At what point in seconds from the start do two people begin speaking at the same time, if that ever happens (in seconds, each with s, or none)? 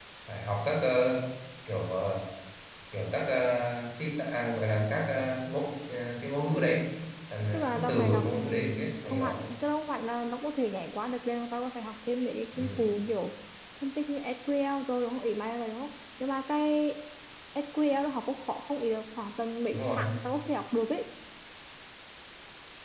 7.5 s